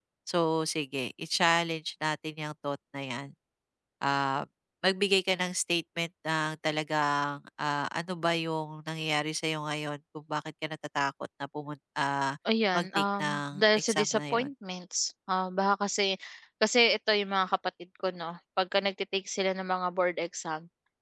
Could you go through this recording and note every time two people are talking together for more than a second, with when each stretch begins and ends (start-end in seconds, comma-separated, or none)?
12.7-14.5